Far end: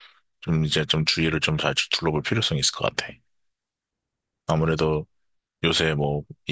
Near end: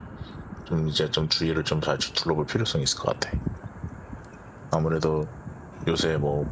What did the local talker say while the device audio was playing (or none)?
none